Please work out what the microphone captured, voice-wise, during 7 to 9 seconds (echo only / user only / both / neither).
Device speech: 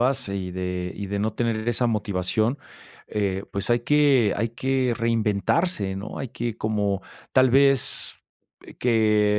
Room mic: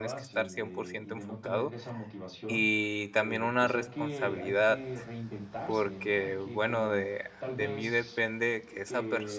both